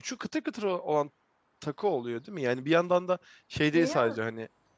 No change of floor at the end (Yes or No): Yes